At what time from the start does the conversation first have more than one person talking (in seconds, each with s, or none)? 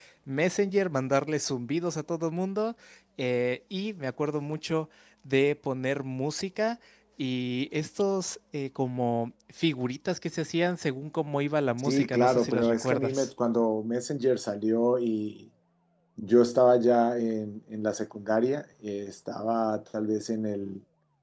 11.8 s